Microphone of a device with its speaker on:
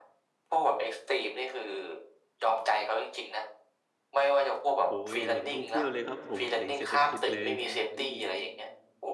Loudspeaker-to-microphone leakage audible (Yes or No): Yes